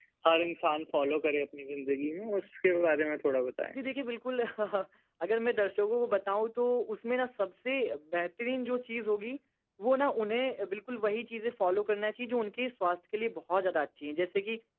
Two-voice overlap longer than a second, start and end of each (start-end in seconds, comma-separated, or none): none